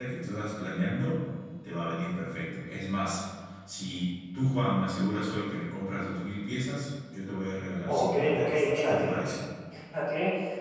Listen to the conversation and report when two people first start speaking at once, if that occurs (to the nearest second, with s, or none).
8 s